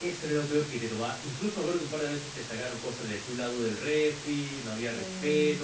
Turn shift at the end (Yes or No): No